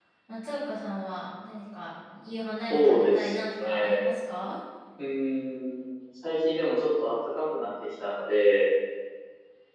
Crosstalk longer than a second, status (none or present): present